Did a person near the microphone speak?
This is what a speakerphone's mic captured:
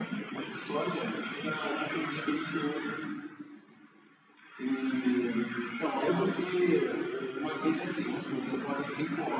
No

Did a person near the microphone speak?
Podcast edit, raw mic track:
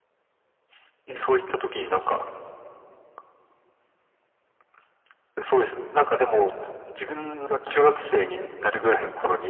Yes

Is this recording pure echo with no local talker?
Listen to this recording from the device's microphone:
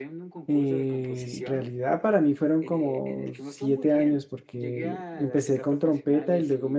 No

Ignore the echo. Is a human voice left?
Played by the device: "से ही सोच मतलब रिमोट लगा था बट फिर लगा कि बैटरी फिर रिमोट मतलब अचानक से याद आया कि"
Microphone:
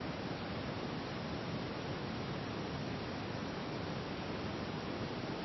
No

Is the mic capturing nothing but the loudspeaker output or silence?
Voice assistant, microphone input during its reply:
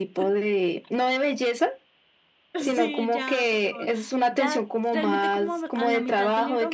No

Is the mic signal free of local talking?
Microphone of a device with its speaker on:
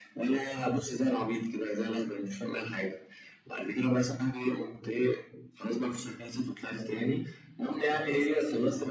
No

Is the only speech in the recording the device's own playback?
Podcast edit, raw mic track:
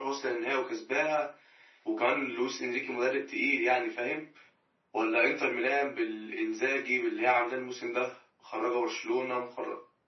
Yes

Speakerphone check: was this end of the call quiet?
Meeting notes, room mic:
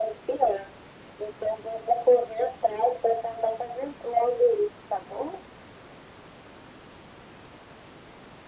Yes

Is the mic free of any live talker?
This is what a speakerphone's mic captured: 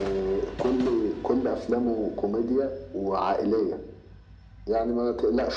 Yes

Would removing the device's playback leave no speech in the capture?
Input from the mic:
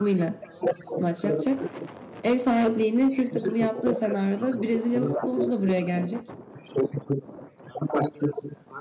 No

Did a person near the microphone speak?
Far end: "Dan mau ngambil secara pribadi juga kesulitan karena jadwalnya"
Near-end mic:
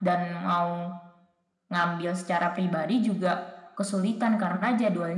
No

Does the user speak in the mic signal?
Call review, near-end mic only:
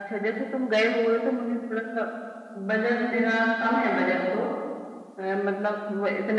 No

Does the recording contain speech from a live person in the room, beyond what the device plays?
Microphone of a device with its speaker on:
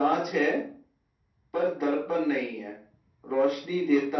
No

